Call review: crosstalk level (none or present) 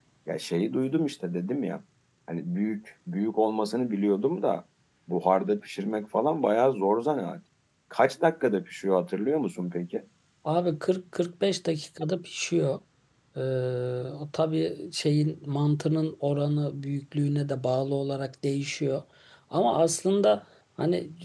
none